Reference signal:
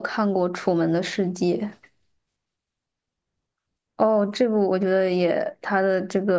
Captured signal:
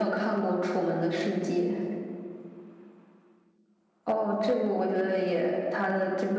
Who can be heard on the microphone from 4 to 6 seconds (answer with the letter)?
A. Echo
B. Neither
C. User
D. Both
A